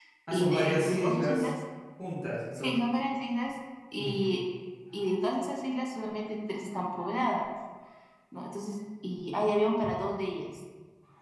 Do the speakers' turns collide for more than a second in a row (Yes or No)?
Yes